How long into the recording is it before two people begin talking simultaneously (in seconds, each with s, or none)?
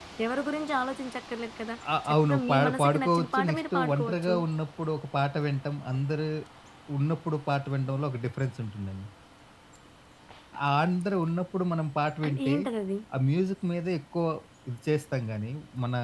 2.0 s